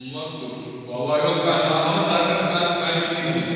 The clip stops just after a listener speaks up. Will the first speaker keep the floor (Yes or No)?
Yes